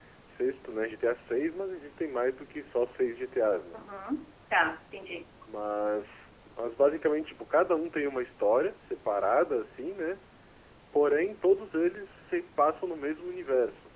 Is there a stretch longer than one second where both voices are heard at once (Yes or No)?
No